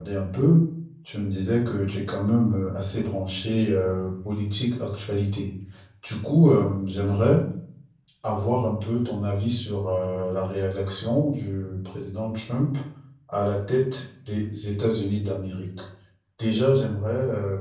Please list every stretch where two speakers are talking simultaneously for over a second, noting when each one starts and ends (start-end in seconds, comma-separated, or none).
none